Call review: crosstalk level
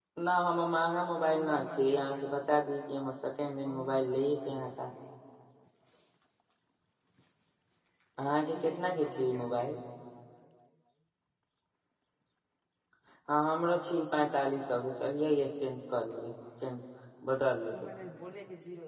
present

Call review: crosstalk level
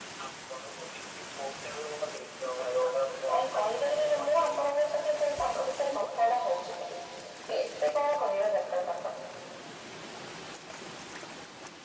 present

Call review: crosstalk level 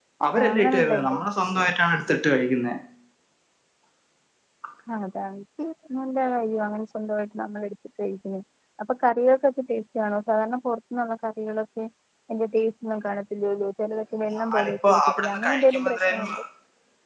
present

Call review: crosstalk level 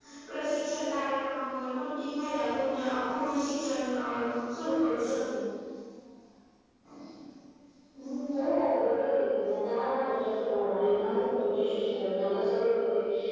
none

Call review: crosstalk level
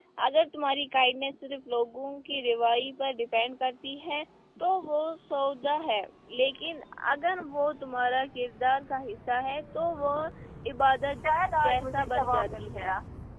present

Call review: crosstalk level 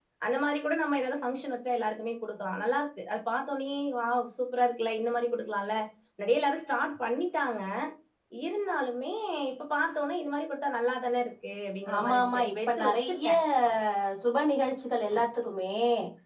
present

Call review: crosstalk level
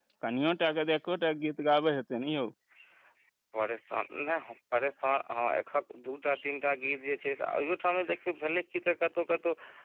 none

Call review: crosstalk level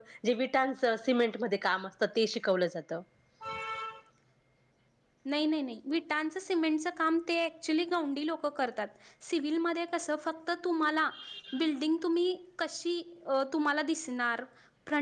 none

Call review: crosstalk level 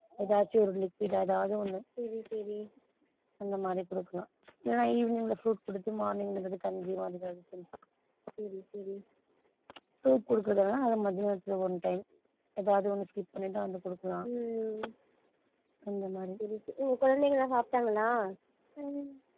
none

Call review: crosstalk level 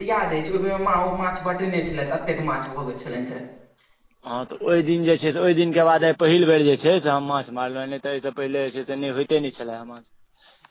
none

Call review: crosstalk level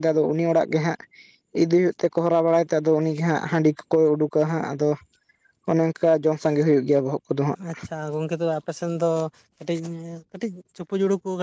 none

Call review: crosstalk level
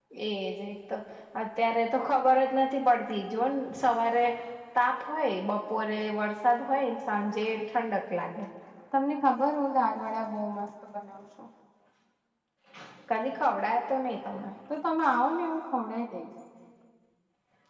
none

